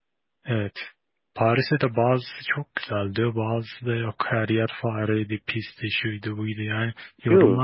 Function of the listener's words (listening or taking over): listening